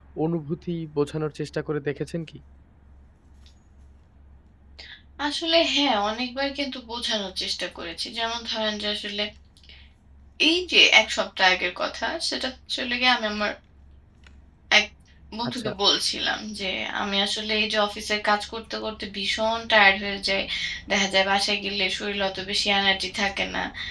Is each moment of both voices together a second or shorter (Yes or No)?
Yes